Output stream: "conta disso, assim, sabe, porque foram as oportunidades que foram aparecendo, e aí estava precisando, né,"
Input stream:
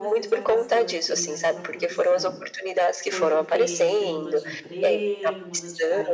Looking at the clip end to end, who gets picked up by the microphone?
both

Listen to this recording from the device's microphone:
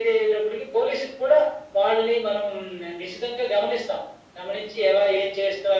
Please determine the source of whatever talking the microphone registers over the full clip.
echo only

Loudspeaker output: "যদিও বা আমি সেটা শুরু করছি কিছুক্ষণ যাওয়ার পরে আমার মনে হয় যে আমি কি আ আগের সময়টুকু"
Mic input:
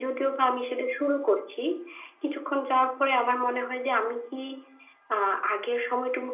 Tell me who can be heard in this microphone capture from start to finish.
echo only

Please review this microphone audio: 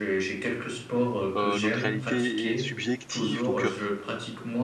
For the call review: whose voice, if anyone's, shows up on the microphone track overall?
both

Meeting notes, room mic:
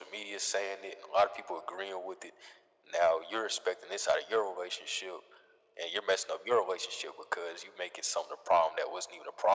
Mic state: echo only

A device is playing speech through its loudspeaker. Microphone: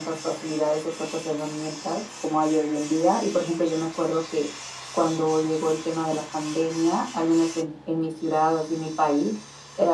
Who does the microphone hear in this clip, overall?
echo only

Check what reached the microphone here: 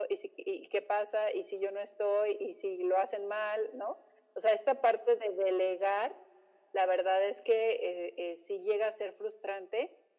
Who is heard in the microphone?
echo only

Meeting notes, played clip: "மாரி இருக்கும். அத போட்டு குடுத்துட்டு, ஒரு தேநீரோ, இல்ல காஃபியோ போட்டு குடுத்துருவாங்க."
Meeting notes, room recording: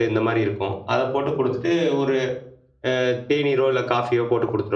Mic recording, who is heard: echo only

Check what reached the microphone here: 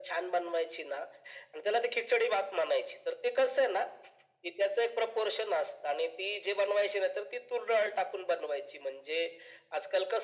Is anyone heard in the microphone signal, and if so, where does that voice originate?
echo only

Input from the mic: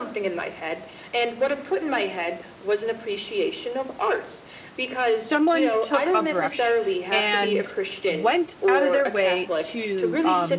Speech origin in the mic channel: both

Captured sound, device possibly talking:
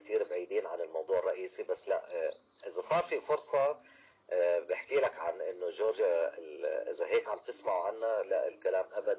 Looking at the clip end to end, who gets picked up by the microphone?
echo only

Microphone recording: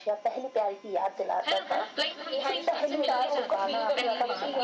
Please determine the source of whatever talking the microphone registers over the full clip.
both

